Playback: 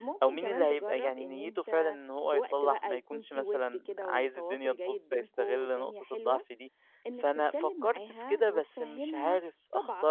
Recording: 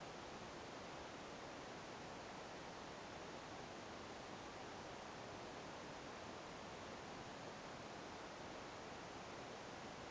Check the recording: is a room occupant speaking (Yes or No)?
No